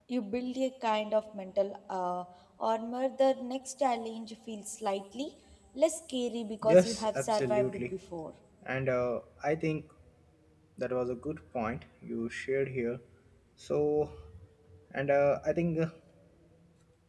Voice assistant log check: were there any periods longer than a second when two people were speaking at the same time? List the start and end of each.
6.6-7.8

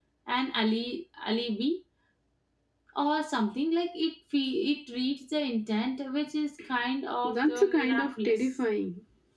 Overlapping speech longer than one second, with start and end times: 7.2-8.5

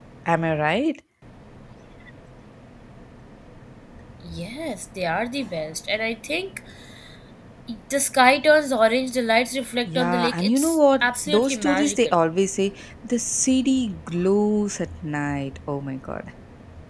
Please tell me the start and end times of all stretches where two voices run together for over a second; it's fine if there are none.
9.9-12.2

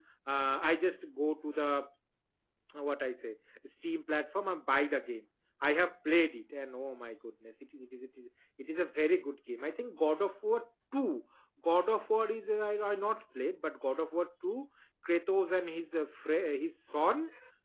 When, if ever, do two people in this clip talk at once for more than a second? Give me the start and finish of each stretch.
none

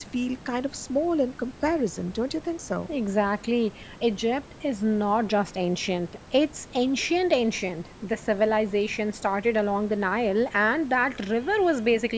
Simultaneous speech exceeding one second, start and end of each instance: none

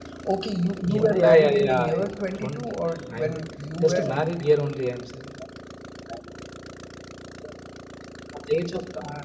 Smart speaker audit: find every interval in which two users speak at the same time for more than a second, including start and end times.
0.9-2.6

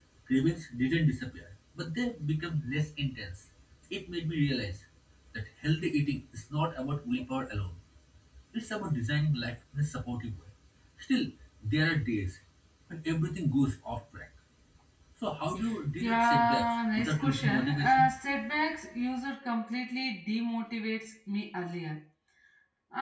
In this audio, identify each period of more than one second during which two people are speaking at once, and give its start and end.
16.0-18.1

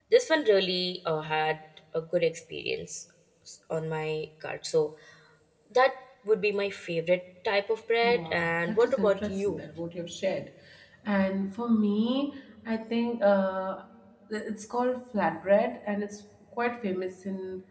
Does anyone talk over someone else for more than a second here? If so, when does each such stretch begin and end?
8.0-9.6

